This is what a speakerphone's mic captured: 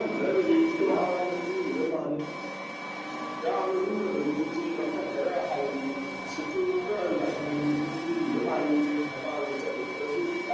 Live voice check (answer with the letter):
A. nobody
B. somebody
B